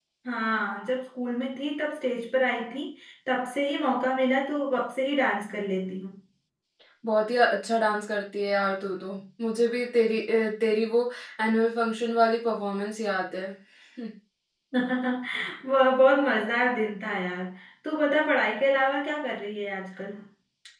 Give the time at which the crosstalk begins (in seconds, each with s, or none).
none